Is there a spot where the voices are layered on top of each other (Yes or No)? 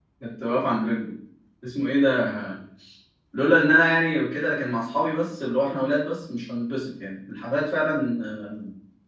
No